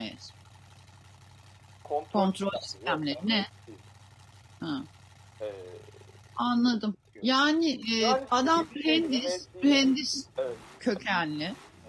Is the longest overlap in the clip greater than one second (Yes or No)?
Yes